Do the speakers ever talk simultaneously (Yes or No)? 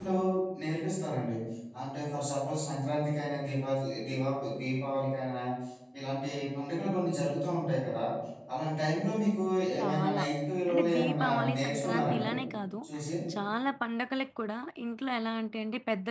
Yes